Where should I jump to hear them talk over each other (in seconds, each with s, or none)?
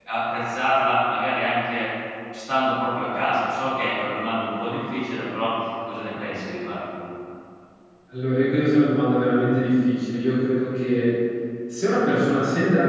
none